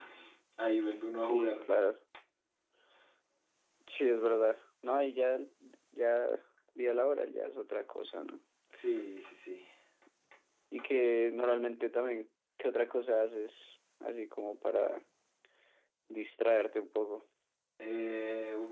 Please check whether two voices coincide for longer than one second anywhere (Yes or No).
No